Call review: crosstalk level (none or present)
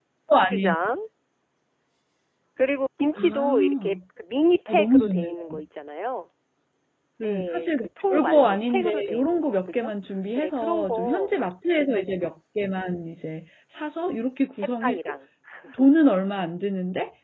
present